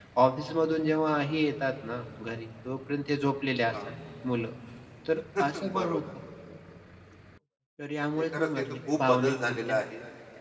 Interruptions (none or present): present